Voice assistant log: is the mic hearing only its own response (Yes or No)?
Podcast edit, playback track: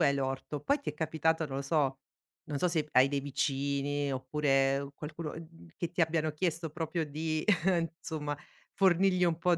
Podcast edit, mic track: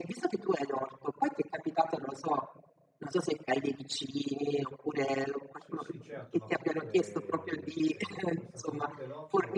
No